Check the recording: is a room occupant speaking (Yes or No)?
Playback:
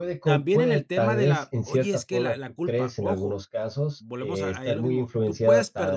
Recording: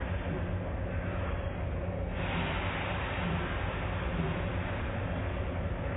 No